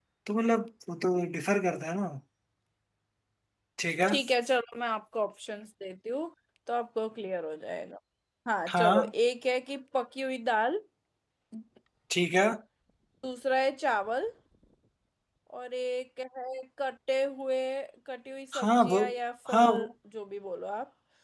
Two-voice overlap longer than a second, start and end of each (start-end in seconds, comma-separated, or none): none